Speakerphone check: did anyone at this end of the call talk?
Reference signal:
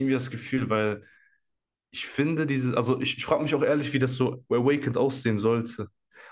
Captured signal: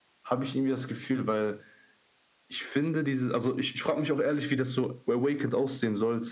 No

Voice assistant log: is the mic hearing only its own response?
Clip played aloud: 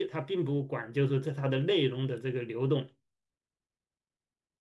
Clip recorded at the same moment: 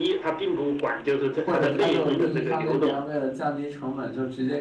No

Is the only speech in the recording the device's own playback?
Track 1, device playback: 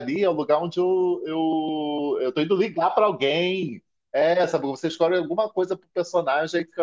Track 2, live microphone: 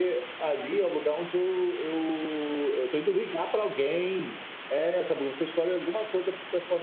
Yes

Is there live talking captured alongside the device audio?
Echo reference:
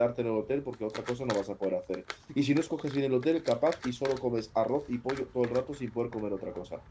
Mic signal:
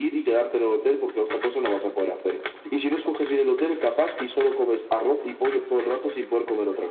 No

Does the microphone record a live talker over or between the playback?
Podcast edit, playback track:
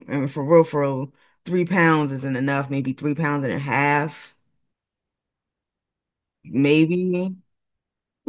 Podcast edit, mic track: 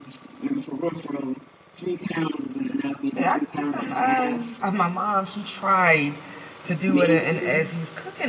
Yes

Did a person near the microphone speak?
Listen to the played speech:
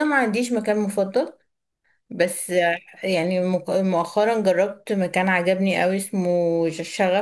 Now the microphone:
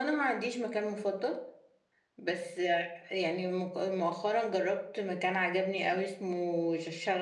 No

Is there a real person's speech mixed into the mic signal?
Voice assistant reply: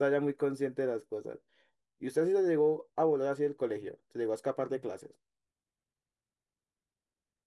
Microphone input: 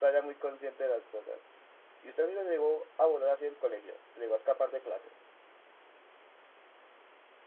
No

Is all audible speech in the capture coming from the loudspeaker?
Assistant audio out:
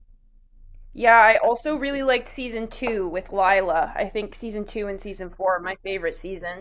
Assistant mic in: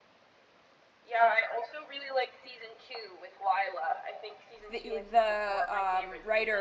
No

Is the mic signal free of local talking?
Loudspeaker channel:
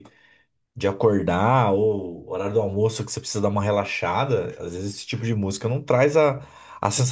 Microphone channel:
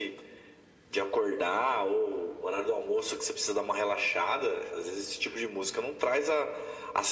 Yes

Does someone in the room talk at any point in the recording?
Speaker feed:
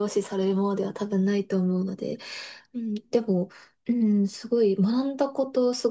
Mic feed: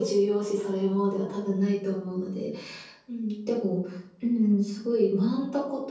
No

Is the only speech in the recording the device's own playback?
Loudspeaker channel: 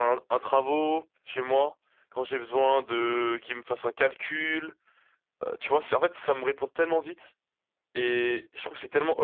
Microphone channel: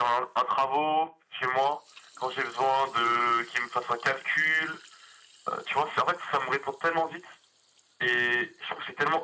Yes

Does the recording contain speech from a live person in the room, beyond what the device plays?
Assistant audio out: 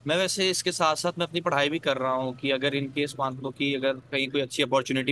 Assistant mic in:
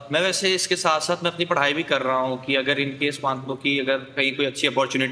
No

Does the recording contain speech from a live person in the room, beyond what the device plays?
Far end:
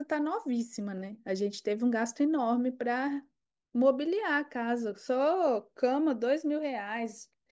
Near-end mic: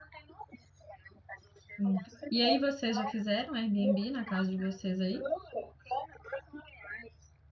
Yes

